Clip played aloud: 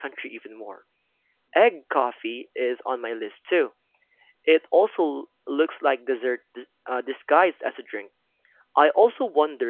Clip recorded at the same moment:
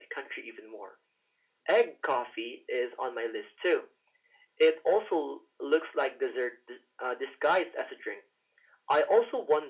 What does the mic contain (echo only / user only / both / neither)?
echo only